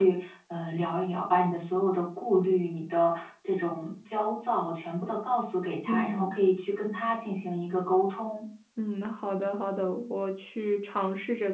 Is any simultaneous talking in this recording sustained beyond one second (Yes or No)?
No